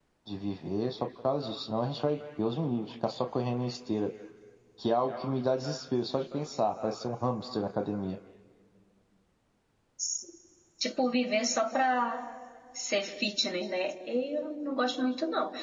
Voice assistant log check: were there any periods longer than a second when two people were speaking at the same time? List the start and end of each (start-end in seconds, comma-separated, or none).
none